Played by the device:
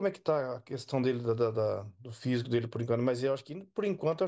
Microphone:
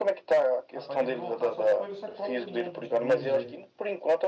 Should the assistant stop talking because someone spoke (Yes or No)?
Yes